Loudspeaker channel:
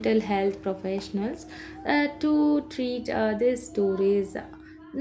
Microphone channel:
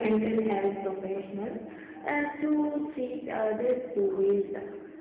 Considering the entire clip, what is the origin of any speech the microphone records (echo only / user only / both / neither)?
echo only